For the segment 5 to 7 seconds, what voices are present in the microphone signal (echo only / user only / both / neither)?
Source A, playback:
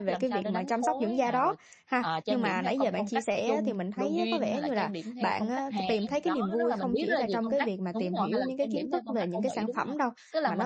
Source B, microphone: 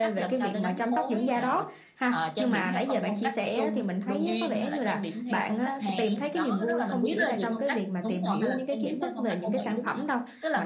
echo only